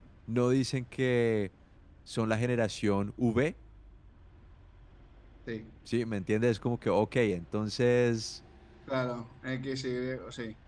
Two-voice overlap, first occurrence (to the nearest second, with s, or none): none